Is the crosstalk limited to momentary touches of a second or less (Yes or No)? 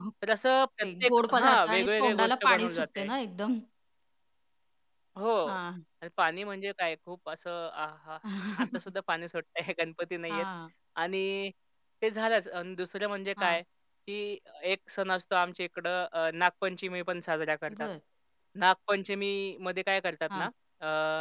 No